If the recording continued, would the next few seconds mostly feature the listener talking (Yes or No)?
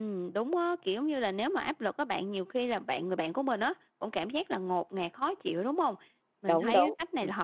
No